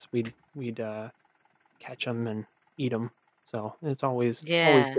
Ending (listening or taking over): listening